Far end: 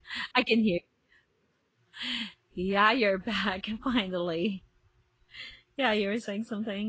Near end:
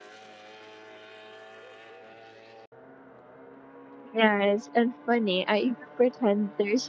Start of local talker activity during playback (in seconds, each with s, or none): 4.1 s